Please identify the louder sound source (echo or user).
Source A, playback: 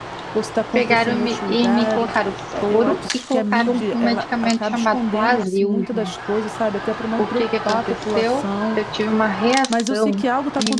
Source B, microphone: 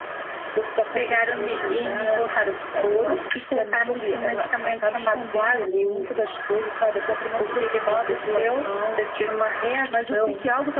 echo